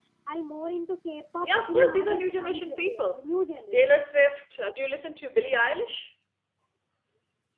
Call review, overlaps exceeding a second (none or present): present